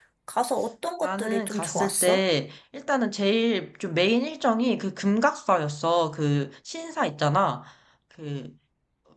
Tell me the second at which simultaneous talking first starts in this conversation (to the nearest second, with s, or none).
1 s